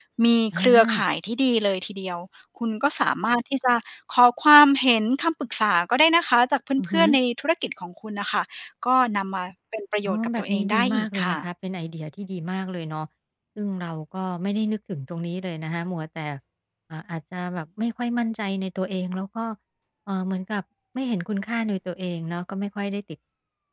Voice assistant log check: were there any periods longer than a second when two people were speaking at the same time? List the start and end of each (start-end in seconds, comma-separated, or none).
10.1-11.4